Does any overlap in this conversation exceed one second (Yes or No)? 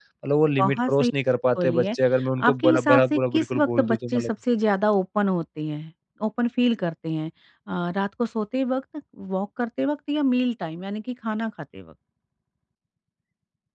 Yes